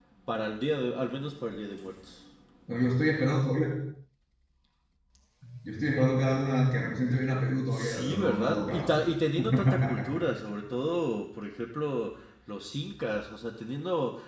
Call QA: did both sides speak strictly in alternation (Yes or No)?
No